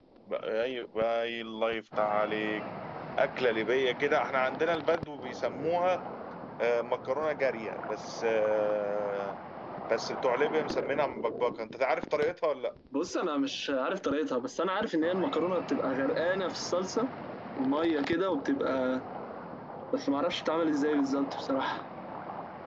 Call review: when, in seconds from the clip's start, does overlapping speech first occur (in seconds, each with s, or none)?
none